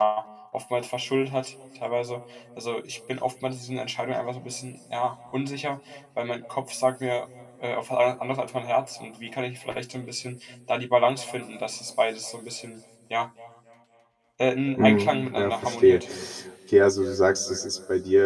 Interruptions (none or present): present